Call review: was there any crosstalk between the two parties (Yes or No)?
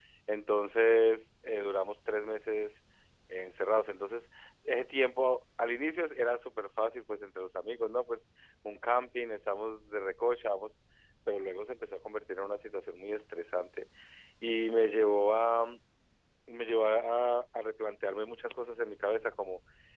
No